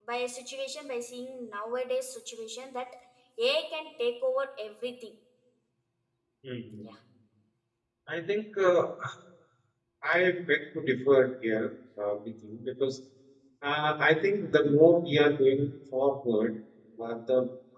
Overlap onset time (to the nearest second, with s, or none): none